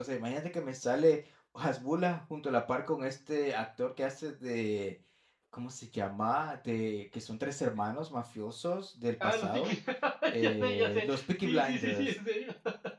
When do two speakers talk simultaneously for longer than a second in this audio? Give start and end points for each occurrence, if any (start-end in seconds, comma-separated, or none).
10.4-12.1